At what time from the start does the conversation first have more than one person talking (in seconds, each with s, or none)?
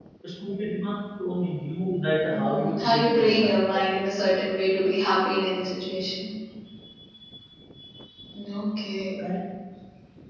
2.3 s